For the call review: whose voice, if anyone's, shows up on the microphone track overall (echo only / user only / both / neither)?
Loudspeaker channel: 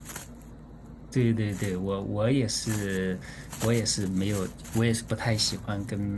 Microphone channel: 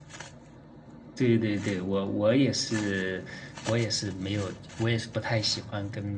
echo only